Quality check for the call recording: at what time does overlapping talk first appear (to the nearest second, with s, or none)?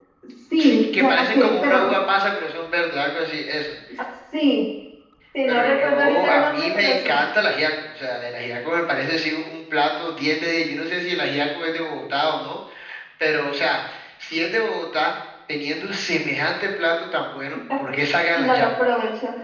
1 s